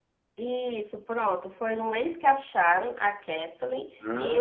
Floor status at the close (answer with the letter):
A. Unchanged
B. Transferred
A